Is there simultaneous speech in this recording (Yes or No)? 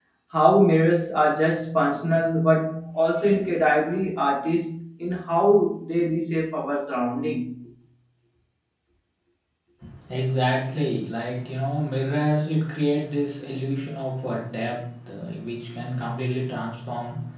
No